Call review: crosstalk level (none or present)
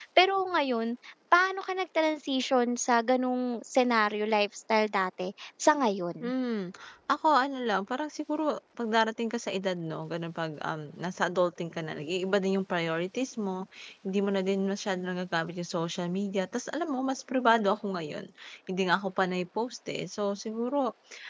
none